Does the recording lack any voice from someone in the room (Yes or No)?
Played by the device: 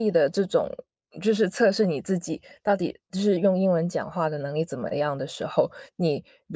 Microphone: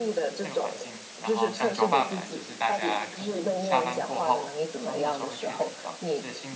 No